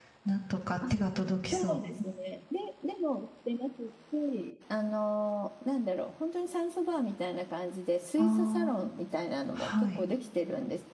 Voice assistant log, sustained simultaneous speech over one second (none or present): none